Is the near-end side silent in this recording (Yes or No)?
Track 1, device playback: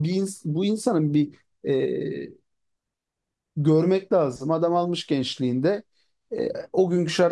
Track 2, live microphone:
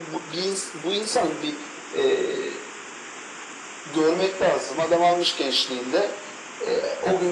Yes